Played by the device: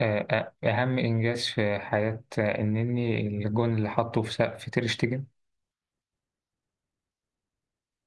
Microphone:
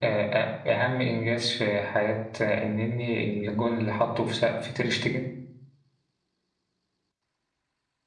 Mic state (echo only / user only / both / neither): echo only